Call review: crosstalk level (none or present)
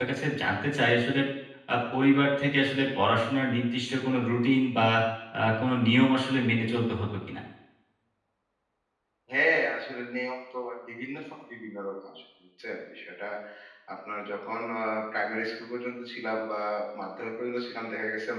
none